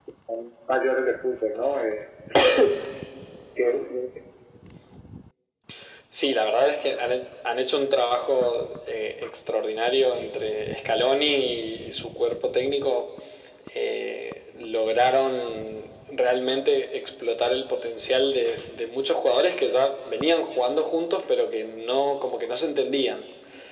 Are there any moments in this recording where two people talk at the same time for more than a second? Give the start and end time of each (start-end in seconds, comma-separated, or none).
none